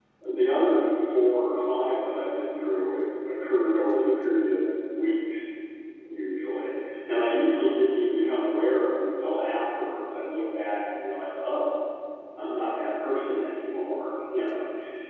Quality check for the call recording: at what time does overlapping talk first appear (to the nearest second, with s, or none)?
none